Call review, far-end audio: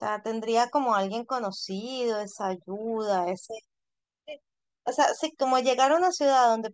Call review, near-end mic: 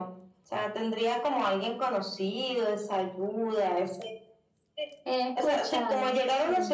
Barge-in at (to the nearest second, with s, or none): 5 s